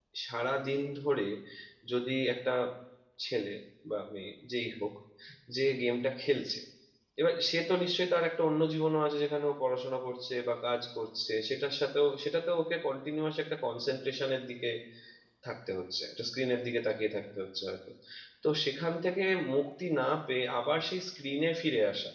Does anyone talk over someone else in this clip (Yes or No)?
No